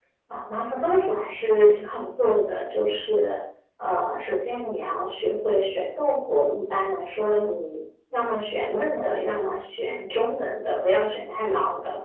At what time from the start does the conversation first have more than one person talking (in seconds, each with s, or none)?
none